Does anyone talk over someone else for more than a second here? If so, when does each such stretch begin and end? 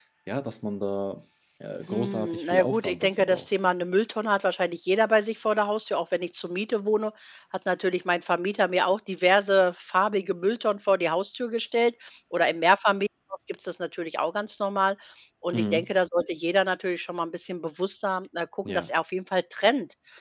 1.9-3.5

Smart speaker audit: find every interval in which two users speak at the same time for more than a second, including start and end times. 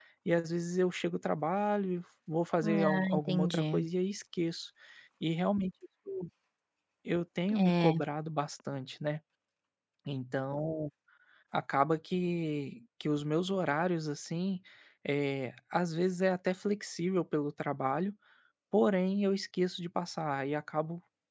2.6-3.8

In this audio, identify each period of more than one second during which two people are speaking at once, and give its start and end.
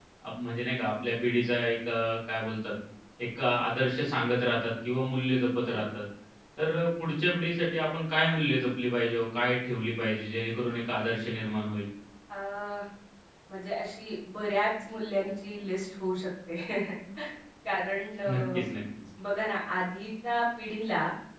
none

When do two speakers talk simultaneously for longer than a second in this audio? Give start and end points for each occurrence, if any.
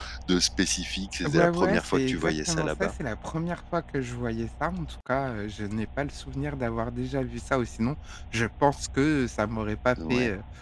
1.2-2.9

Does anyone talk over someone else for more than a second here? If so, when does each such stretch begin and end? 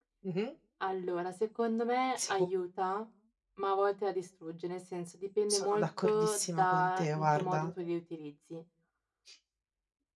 5.5-7.7

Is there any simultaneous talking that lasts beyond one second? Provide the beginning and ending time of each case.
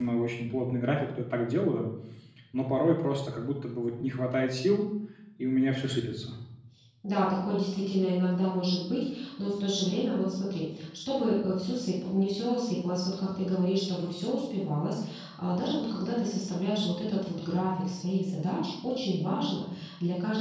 none

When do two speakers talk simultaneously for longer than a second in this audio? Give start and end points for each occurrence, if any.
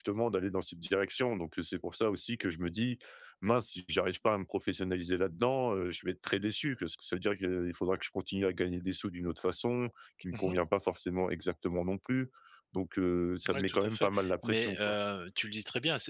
13.5-14.9

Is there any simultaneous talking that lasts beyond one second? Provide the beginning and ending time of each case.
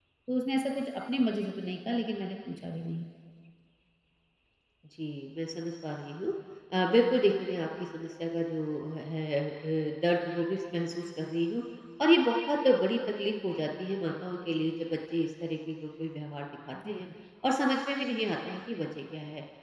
none

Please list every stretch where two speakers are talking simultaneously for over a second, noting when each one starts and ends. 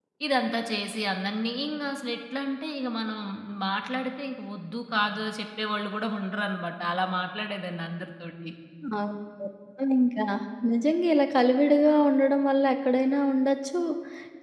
none

